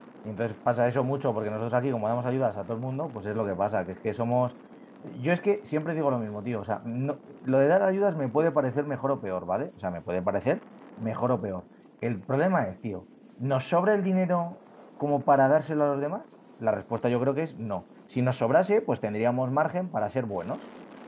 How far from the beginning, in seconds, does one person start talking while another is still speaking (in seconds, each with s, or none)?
none